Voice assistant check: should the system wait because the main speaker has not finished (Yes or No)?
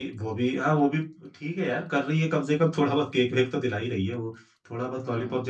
No